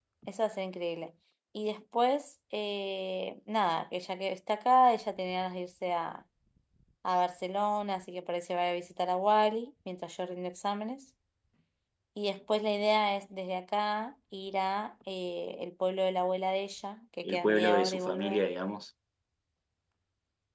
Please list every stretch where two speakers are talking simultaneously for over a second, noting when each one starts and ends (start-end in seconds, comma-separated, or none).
17.2-18.5